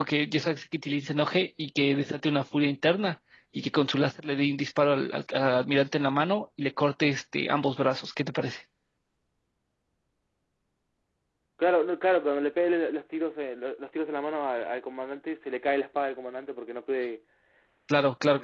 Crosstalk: none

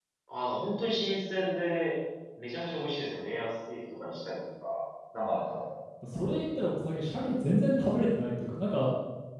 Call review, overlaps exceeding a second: none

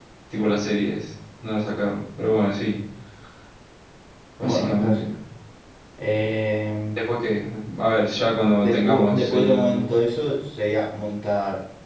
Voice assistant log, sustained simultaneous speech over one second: present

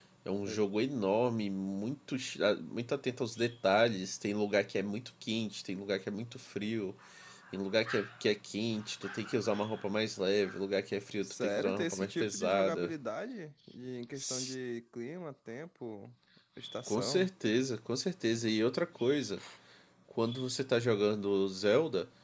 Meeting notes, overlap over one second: present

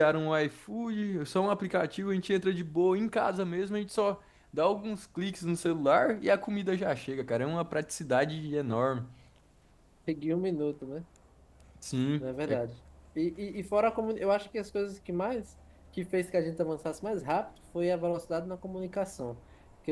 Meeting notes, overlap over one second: none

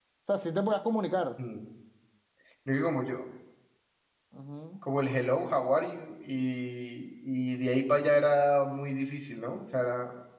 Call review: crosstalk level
none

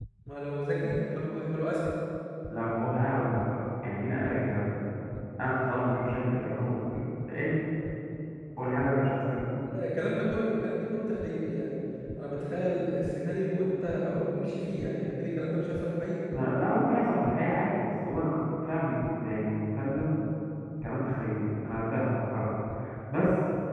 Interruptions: none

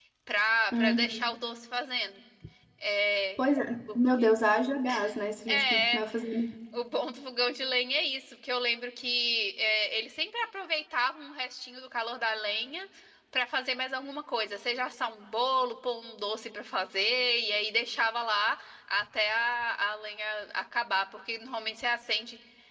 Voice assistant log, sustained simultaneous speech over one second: none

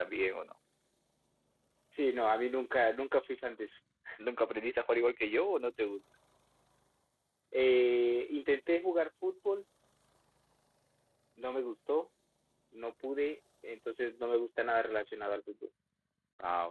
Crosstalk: none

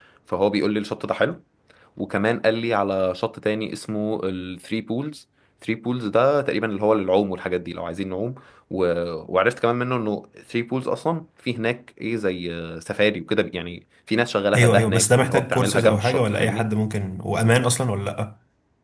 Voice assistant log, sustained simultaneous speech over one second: present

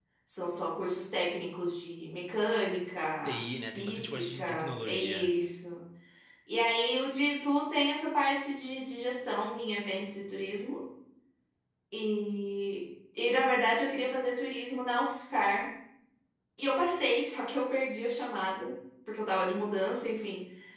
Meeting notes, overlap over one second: present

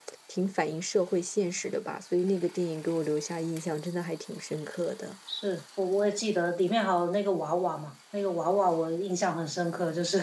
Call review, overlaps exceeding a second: none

